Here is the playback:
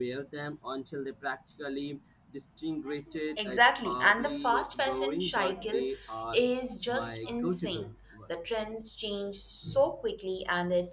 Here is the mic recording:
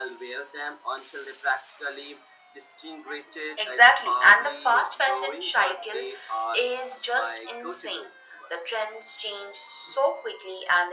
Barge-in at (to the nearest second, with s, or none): none